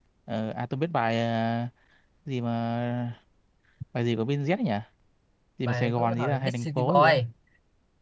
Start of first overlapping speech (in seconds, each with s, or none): 5.7 s